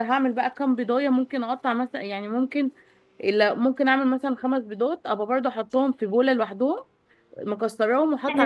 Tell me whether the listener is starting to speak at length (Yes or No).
No